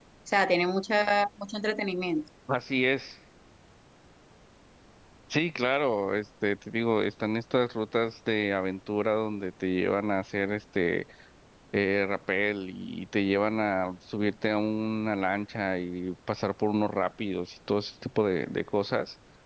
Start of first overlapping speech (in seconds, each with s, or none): none